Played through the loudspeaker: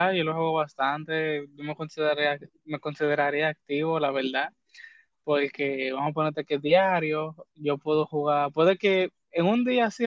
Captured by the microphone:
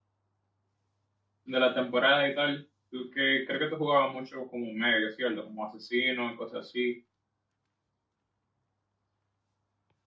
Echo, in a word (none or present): none